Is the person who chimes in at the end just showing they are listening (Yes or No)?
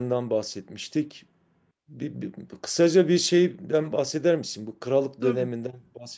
Yes